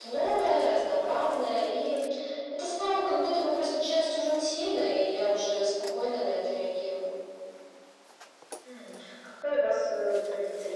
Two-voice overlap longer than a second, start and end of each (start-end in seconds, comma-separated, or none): none